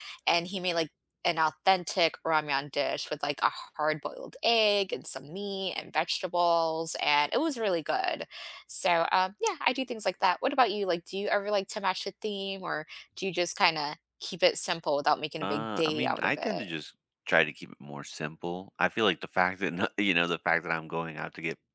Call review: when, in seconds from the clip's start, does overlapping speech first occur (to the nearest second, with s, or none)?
15 s